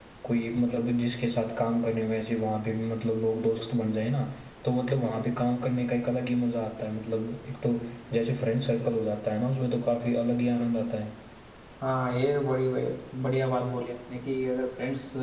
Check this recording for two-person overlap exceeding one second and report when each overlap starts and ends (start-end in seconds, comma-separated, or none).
none